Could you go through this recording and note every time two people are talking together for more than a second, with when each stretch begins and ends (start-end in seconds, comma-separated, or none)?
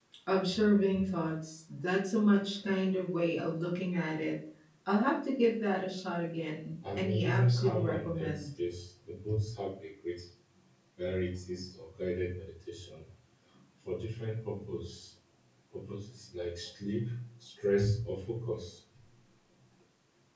7.0-8.5